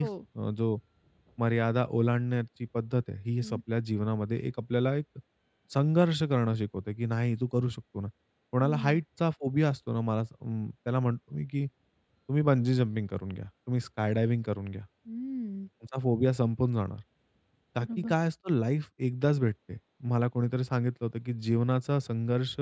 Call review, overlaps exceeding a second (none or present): none